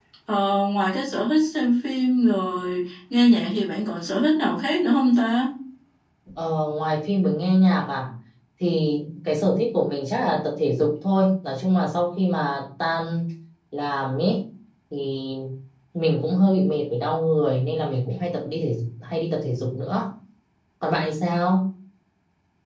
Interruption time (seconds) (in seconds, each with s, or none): none